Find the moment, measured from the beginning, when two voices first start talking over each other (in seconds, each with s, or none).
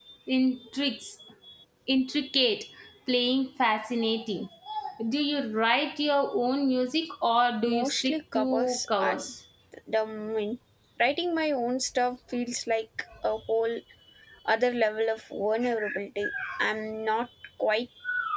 7.7 s